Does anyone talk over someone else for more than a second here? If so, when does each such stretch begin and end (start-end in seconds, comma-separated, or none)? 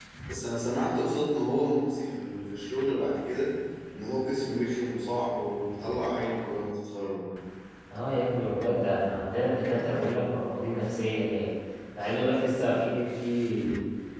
none